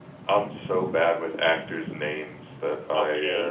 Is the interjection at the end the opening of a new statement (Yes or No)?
Yes